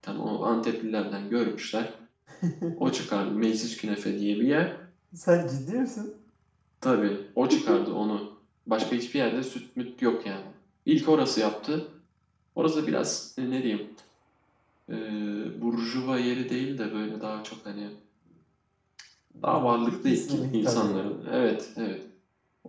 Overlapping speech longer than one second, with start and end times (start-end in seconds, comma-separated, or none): 19.7-21.1